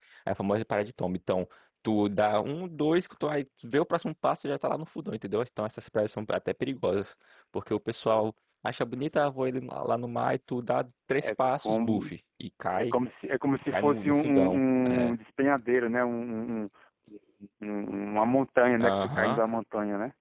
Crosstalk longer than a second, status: present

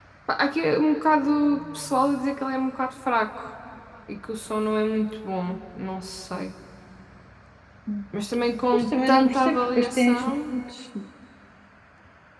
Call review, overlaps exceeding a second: present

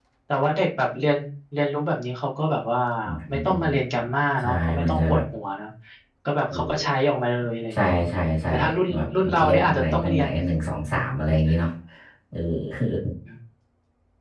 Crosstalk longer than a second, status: present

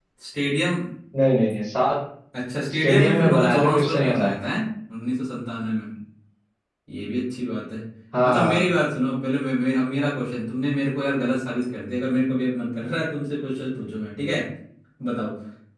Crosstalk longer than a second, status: present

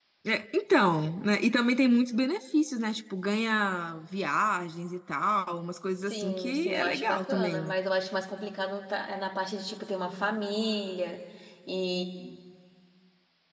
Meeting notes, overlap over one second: present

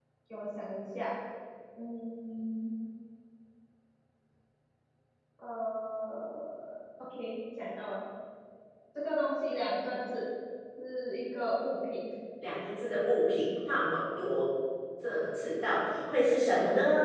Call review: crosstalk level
none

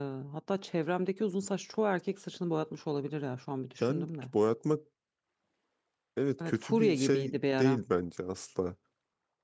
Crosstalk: present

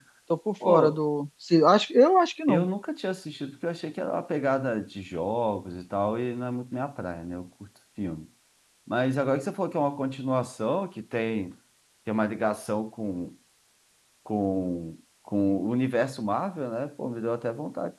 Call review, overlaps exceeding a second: none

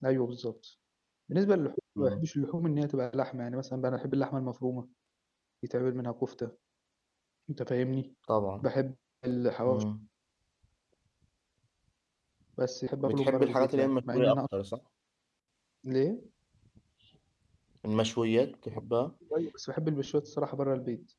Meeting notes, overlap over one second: present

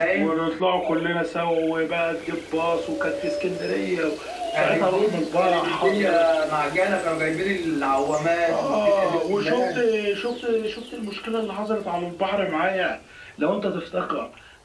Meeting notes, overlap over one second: present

